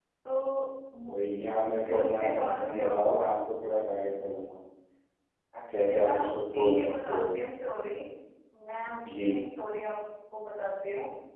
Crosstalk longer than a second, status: present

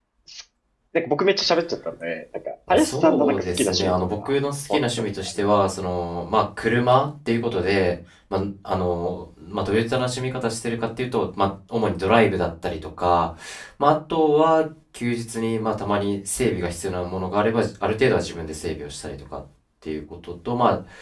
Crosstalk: present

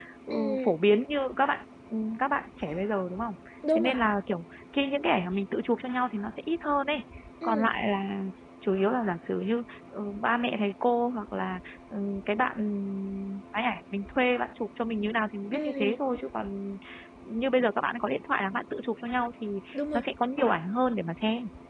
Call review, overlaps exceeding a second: none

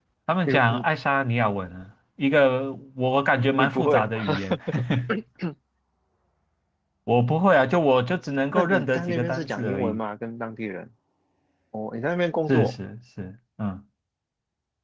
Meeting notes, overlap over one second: present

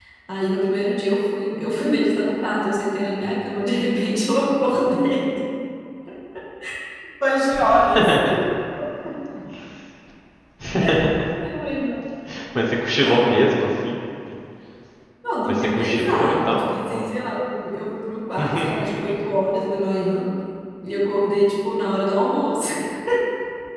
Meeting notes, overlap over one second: present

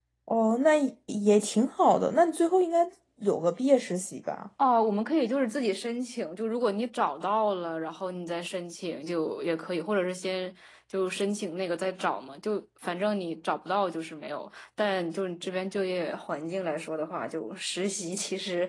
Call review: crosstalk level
none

